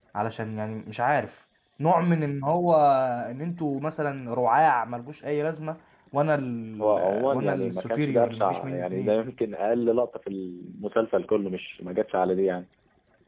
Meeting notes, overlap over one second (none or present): present